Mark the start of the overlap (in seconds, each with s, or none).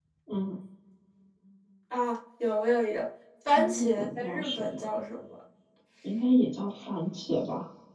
3.5 s